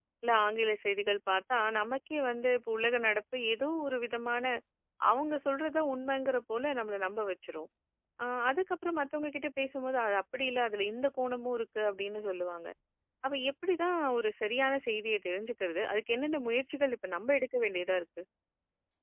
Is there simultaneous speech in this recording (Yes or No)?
No